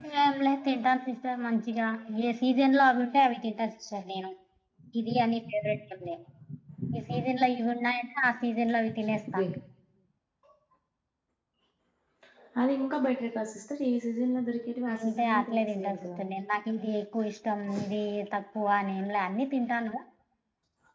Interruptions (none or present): present